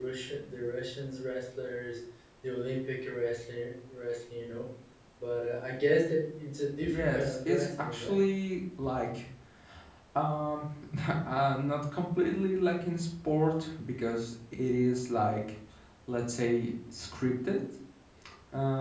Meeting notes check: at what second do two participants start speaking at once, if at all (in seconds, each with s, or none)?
6.8 s